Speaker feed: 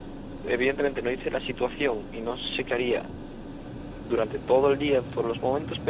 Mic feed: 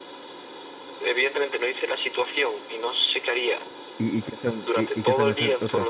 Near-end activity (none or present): present